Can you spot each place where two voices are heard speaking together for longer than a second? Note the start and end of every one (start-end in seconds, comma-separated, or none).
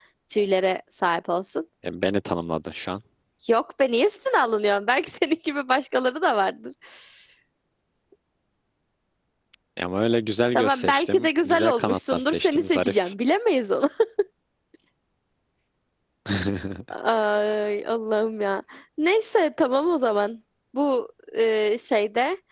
10.6-13.1